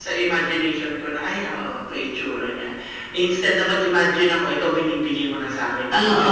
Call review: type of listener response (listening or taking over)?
taking over